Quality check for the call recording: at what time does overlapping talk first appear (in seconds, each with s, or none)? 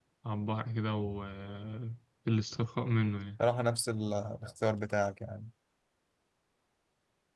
none